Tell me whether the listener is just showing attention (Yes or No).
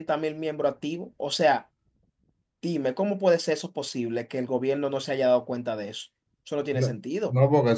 No